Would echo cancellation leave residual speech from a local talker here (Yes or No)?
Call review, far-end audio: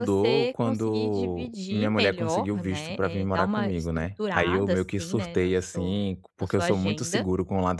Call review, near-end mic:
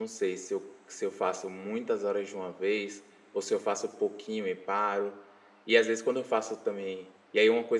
Yes